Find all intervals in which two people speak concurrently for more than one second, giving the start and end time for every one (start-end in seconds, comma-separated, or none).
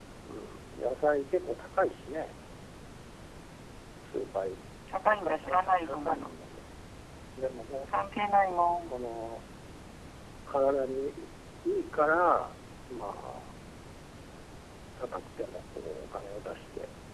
5.1-6.3